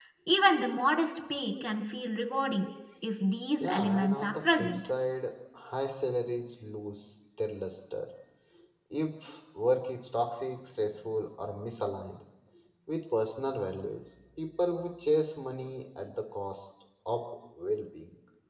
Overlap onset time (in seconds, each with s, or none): 3.6 s